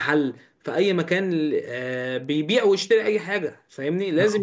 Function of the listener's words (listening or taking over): listening